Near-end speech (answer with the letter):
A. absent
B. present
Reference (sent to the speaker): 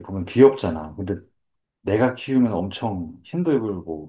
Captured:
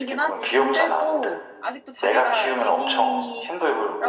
B